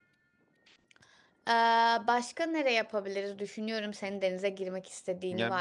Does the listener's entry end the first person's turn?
Yes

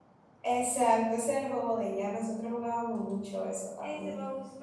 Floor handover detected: Yes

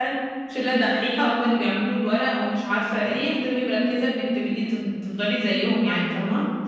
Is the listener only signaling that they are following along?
No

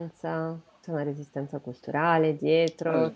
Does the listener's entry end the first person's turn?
Yes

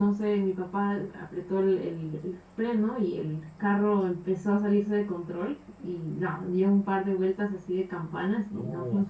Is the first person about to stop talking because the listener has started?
No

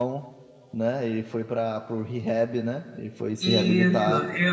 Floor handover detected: Yes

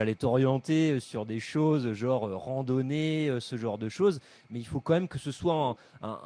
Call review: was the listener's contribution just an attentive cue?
Yes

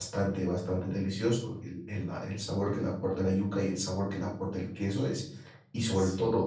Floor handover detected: No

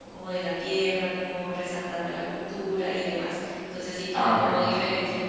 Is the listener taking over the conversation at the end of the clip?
No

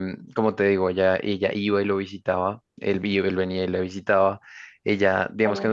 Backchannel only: Yes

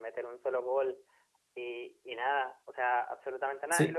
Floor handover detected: Yes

